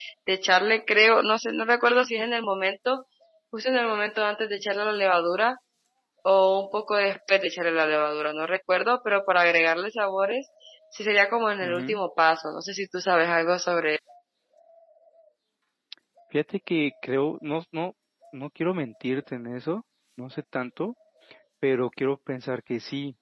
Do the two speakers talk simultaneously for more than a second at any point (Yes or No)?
No